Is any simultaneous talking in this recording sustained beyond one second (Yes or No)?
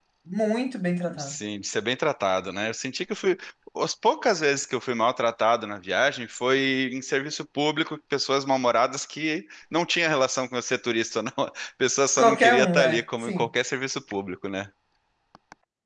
Yes